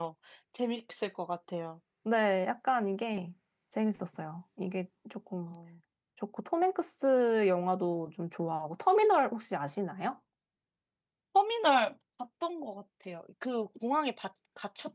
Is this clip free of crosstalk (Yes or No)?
Yes